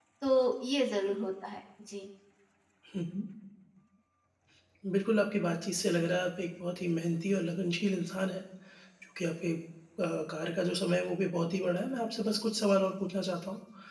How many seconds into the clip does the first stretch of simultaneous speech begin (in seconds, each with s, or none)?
none